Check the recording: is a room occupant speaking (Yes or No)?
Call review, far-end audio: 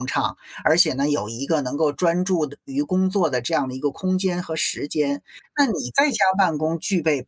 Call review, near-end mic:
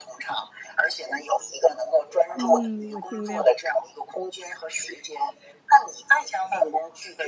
Yes